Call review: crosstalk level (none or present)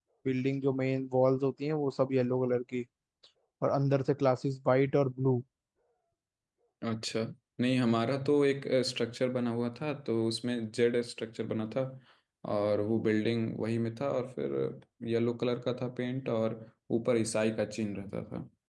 none